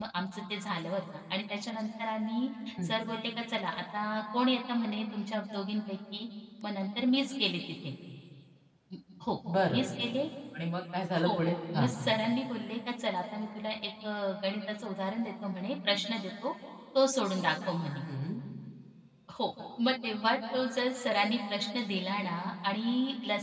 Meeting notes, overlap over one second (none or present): none